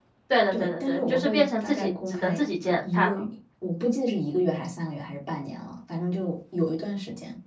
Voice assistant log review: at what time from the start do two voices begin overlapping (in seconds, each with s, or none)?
0.5 s